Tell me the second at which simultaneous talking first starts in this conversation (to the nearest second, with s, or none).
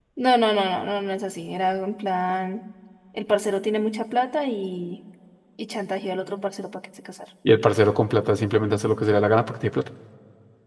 none